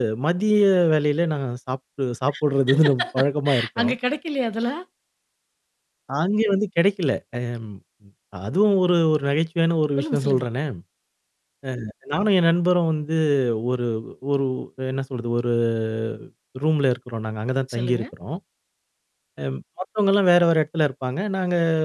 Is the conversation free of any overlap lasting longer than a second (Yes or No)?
Yes